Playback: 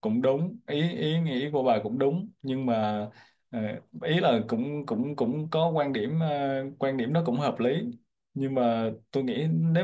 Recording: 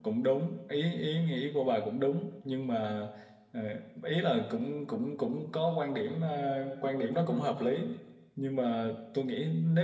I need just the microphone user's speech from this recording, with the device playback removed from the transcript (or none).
none